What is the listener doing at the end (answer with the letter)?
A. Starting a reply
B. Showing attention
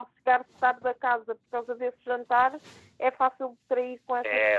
A